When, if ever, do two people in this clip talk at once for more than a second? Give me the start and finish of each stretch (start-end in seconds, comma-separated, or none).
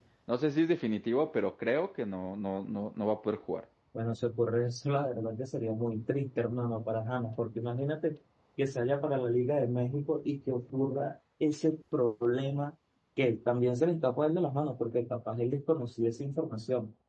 none